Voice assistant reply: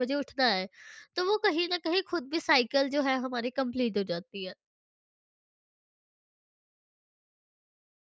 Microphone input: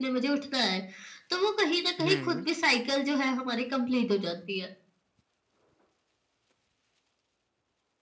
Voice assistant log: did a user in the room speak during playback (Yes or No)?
Yes